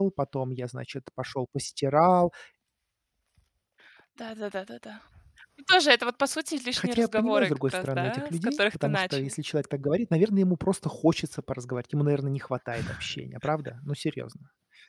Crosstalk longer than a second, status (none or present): present